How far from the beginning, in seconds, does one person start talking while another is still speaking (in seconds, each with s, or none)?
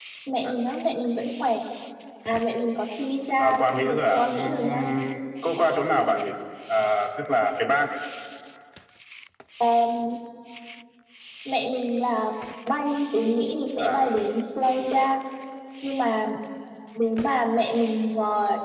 3.4 s